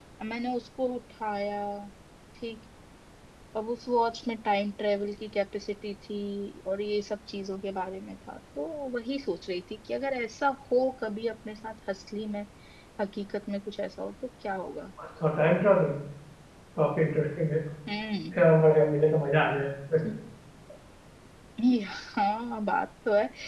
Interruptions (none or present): none